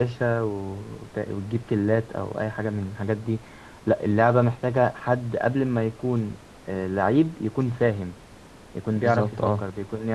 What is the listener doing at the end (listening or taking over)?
listening